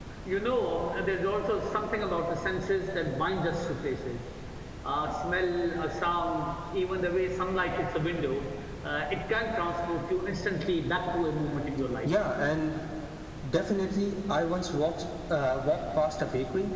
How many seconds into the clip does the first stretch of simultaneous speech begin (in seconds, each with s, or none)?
none